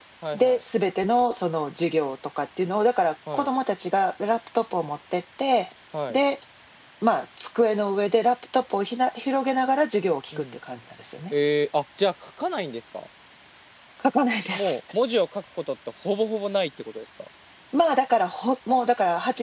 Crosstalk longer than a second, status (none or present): none